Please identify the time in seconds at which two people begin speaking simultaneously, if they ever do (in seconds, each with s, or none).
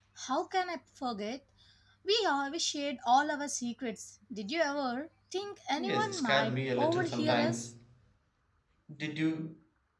5.8 s